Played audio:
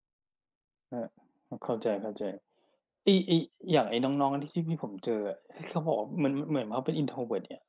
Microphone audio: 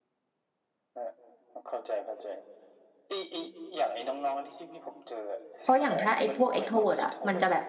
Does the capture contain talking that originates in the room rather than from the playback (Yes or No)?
Yes